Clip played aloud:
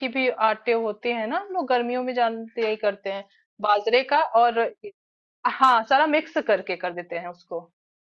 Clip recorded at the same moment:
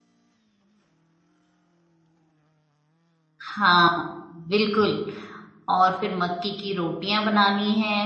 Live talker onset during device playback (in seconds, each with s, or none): 3.5 s